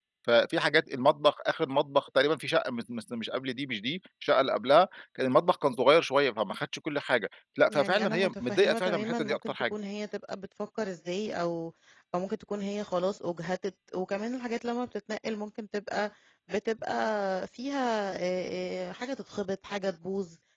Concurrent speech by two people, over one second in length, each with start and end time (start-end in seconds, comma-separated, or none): 7.7-9.5